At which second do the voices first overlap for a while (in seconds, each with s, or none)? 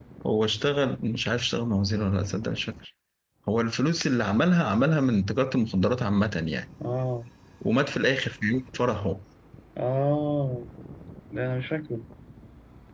none